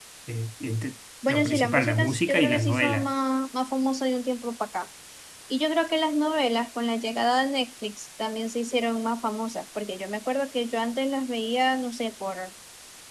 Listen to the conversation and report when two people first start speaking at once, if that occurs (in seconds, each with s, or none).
1.3 s